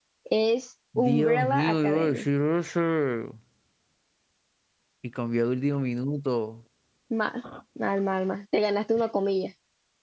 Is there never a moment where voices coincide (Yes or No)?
No